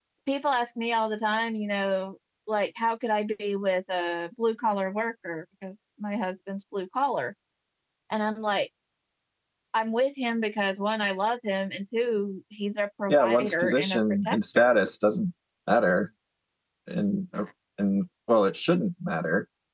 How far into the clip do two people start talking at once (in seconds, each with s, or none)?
13.1 s